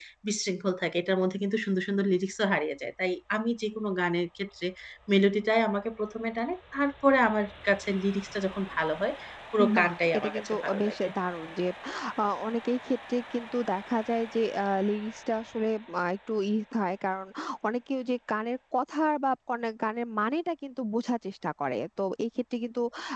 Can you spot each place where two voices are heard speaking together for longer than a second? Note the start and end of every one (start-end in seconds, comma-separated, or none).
9.8-11.1